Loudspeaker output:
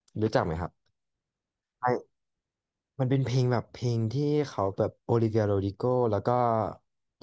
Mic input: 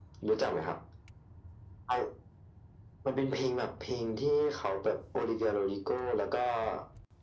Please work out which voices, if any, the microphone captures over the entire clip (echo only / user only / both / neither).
echo only